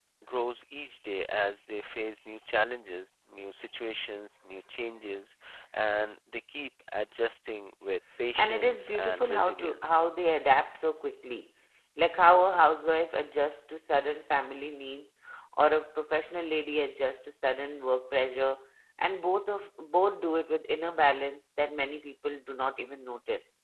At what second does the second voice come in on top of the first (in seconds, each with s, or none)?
8.3 s